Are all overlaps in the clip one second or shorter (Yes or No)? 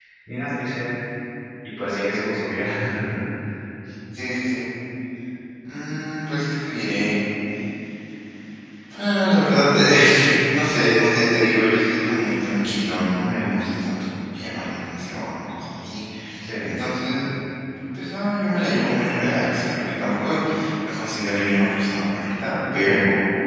Yes